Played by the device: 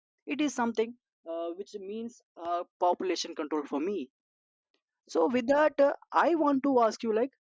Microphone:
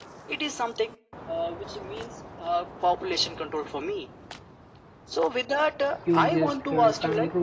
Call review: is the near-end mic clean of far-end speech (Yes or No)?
No